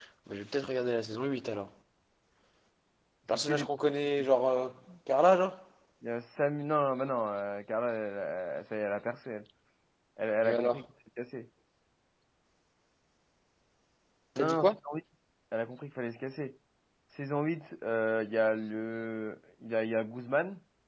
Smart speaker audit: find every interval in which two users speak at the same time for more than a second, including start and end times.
none

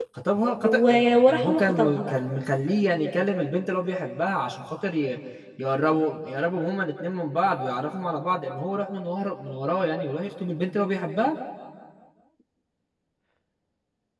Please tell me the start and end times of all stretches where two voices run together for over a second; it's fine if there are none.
0.6-2.2

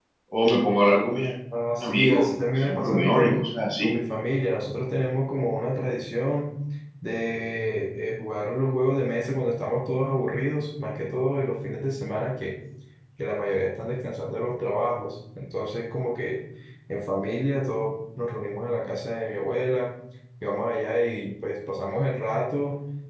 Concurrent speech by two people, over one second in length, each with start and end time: 1.8-3.4

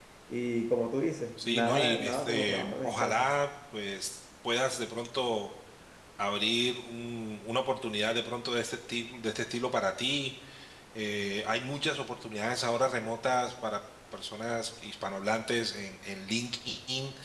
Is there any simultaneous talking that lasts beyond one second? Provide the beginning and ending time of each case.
1.4-3.3

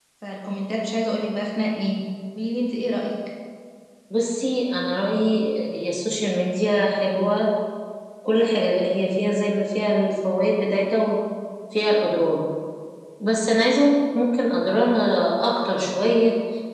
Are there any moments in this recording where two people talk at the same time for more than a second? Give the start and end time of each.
none

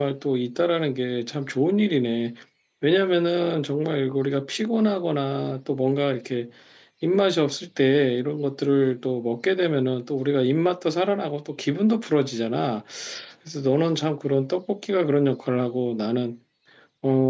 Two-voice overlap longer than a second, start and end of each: none

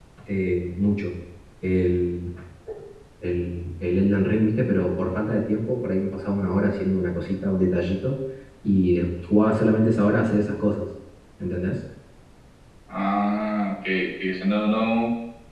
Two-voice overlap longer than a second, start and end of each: none

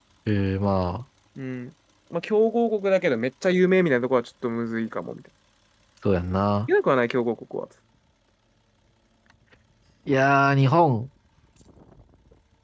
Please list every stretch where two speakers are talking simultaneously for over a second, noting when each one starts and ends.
none

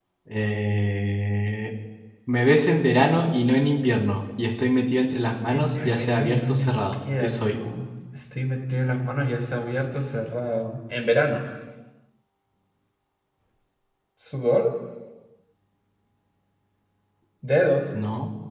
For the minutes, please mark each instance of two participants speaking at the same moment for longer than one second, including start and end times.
5.5-7.5

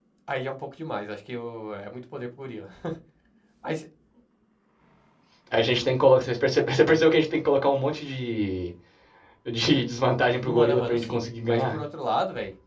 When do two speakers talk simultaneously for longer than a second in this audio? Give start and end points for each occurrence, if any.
10.4-11.8

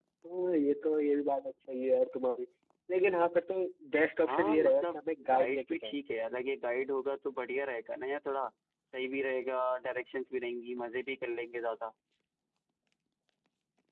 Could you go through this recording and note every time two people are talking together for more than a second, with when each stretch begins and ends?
4.3-5.9

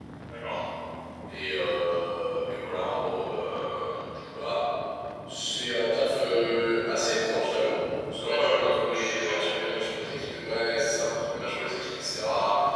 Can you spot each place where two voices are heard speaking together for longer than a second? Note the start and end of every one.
8.2-9.5

